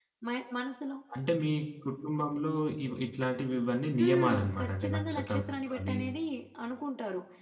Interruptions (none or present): present